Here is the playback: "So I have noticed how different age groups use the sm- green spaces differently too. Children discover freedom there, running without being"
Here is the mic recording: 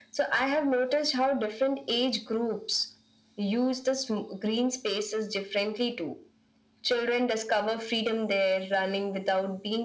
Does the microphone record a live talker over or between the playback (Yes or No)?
No